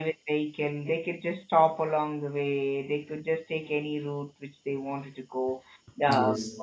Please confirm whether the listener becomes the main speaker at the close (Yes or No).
No